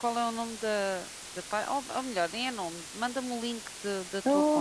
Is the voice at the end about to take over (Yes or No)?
Yes